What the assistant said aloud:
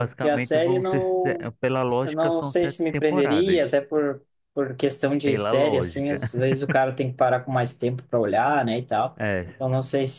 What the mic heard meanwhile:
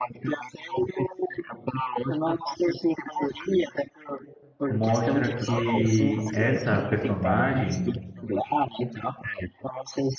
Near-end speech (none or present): present